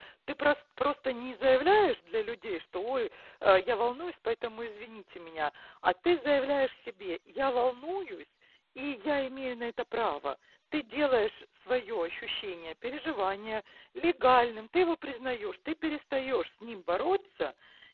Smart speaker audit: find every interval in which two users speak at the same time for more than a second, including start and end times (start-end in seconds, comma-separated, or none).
none